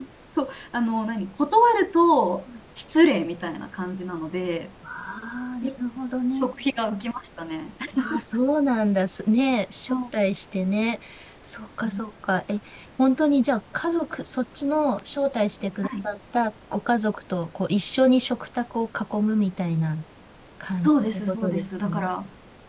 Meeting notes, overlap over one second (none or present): present